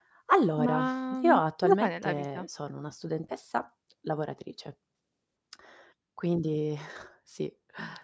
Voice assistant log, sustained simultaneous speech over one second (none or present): present